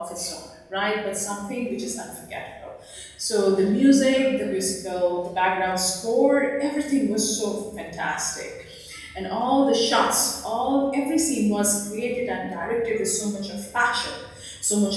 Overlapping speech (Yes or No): No